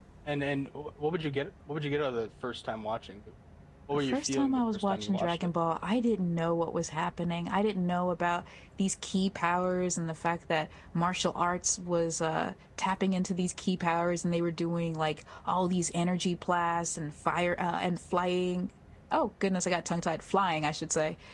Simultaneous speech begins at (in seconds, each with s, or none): 3.9 s